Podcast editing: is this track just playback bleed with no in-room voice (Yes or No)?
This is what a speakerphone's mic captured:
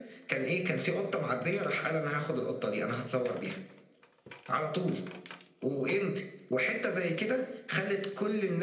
Yes